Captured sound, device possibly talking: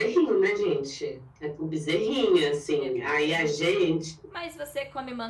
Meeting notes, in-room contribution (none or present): present